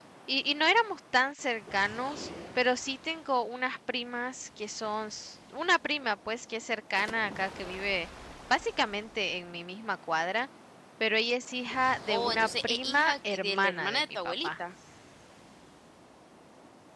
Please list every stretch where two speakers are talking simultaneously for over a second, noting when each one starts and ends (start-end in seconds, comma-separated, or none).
12.1-14.5